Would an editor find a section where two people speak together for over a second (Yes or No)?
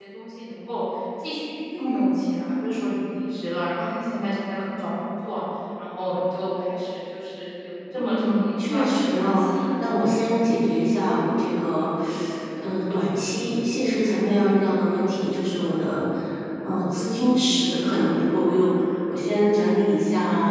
Yes